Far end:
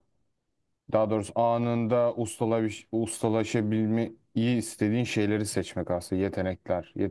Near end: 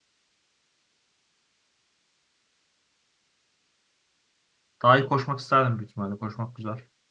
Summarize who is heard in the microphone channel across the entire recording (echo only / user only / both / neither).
user only